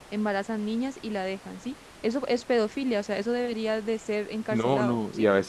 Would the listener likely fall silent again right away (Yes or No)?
No